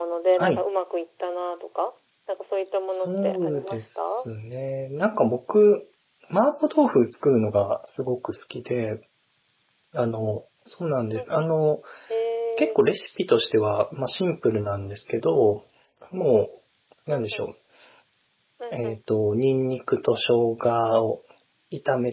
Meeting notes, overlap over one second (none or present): present